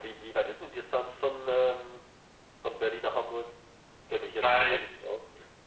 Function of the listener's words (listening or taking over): taking over